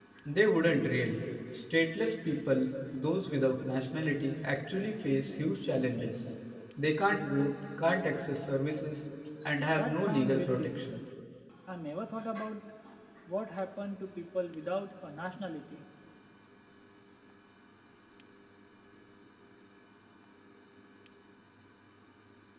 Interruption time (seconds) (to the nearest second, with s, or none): 10 s